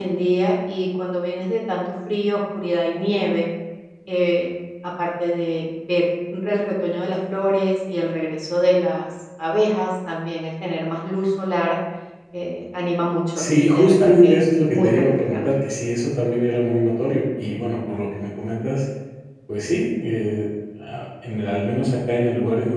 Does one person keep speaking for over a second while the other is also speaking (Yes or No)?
Yes